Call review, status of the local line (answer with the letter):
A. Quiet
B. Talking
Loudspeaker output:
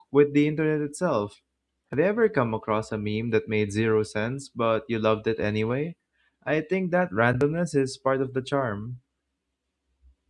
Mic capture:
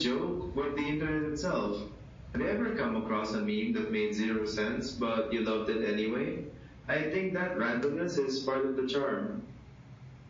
A